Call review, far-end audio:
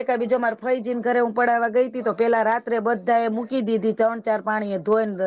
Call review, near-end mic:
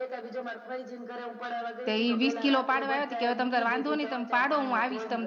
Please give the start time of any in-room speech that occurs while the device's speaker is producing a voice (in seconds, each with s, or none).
1.9 s